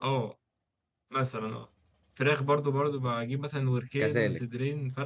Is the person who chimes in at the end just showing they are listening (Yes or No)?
Yes